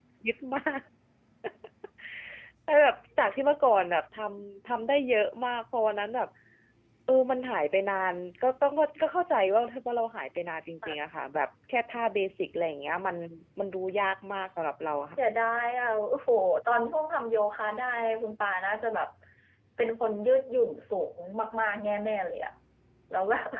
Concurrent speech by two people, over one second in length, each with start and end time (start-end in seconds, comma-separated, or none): none